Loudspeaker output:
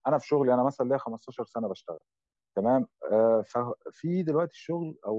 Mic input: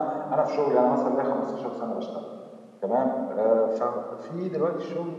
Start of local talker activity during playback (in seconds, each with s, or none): none